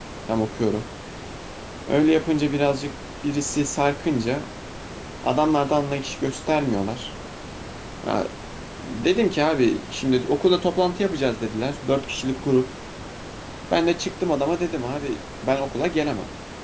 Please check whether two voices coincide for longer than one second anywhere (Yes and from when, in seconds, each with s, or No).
No